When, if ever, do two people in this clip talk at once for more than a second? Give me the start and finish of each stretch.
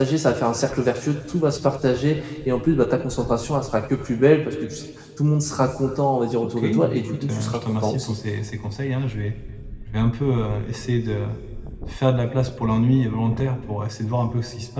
6.6-8.2

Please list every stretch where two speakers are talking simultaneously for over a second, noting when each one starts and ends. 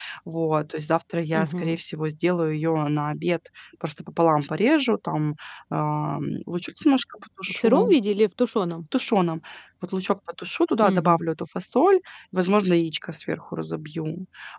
none

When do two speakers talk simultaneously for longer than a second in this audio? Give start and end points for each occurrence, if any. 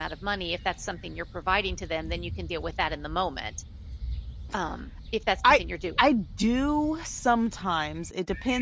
none

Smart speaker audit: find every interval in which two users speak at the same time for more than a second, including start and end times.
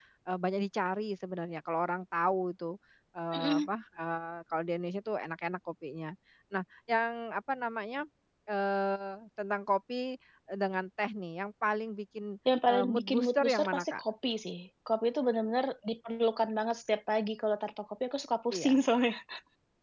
12.7-14.0

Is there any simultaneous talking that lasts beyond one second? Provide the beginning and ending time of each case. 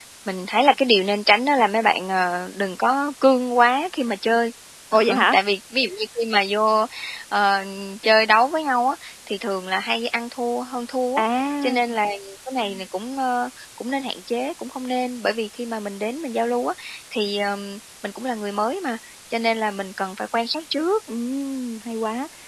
none

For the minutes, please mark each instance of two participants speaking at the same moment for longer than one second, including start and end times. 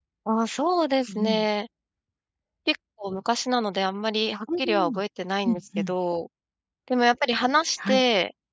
none

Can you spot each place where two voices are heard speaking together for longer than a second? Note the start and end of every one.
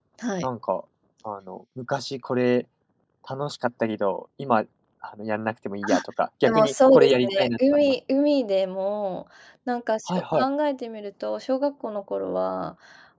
6.5-7.9

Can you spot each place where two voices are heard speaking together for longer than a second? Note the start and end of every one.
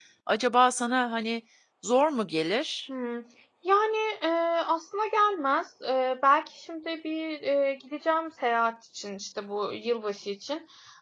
none

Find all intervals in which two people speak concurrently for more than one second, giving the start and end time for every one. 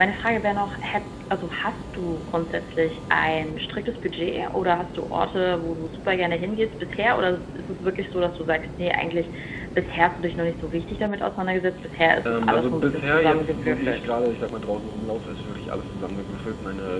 12.2-14.1

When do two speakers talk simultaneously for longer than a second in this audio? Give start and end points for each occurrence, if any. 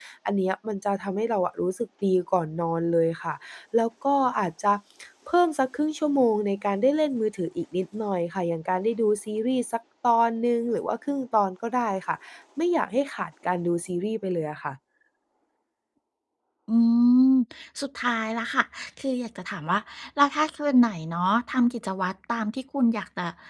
none

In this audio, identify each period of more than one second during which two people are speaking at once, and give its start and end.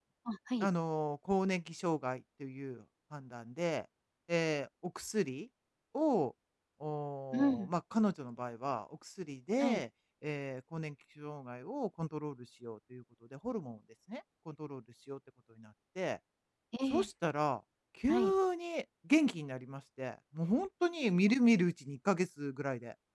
none

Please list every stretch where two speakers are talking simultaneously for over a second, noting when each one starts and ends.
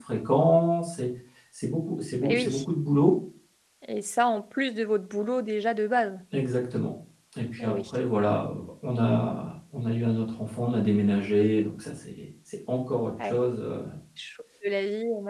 none

